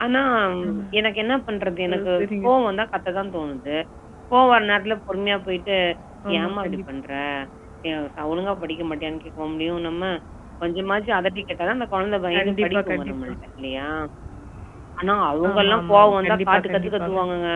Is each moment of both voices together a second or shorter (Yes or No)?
No